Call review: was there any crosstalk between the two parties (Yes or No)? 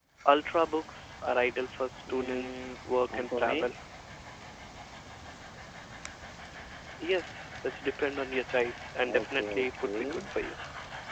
Yes